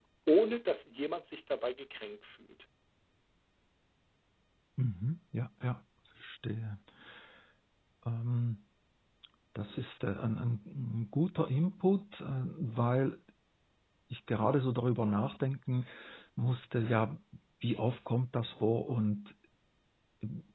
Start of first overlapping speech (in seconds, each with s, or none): none